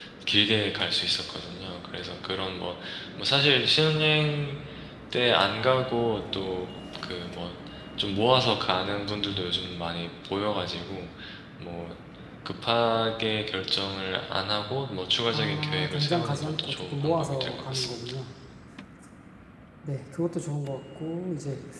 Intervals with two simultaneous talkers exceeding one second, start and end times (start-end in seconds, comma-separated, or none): 15.3-18.1